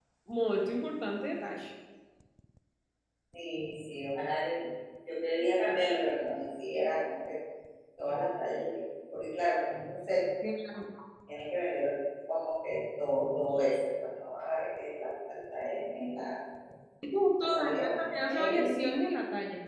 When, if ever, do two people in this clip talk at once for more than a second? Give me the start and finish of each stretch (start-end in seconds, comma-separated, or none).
17.4-18.8